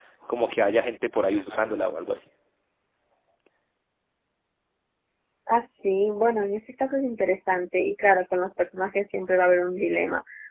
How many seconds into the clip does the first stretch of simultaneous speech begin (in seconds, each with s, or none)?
none